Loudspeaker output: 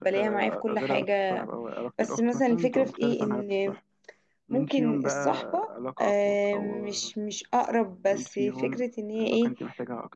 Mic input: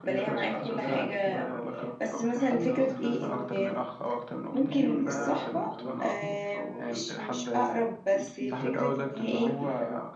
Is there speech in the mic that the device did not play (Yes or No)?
Yes